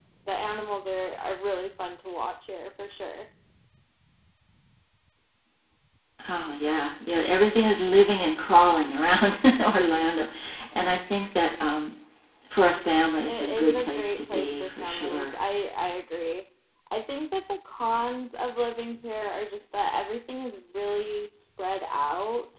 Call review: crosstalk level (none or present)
present